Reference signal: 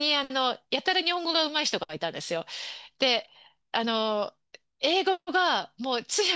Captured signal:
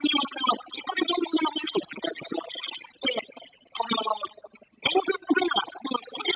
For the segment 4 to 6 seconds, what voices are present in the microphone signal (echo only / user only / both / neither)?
echo only